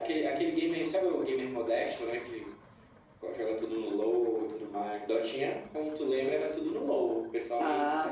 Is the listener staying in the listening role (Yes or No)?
Yes